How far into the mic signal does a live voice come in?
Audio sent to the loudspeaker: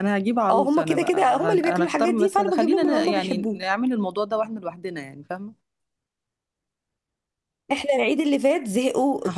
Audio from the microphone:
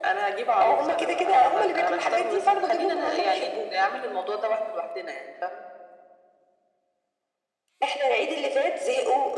none

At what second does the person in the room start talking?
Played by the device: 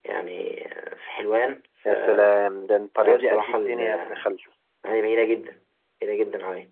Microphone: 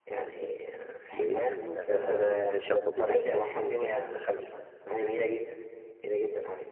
1.1 s

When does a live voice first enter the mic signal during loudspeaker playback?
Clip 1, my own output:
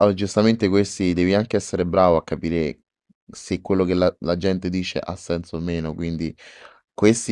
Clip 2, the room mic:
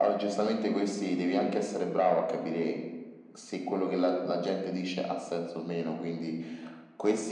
none

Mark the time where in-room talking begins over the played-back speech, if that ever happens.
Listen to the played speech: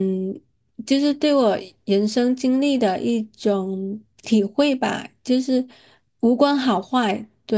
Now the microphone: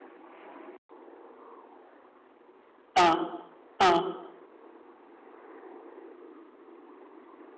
2.9 s

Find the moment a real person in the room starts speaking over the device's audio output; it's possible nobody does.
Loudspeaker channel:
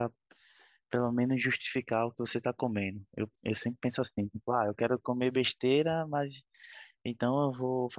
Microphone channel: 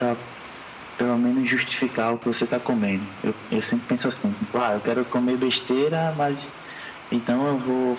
none

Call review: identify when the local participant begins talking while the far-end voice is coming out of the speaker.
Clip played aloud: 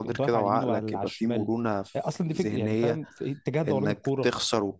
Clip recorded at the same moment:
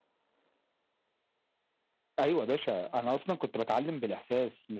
2.2 s

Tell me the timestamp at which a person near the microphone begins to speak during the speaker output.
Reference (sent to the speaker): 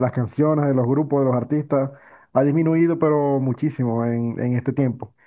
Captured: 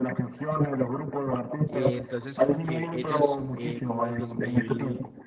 1.6 s

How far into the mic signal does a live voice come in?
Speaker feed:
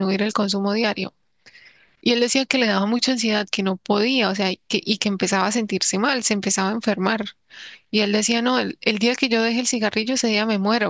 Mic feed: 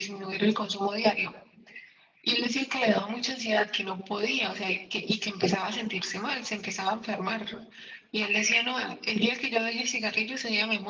none

